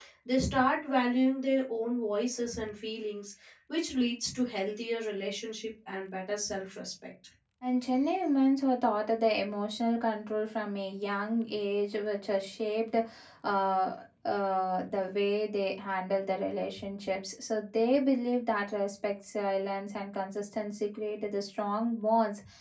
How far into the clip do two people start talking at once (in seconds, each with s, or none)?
none